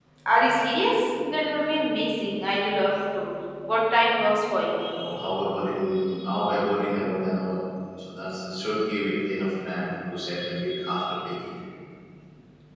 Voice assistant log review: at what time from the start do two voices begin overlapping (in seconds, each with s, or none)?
none